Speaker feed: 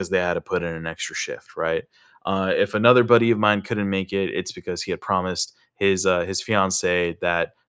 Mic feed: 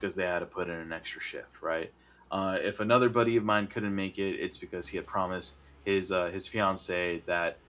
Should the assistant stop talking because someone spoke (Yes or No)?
No